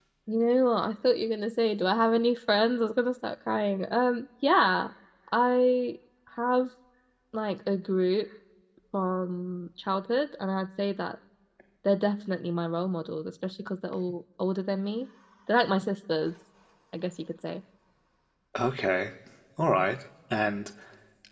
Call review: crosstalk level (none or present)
none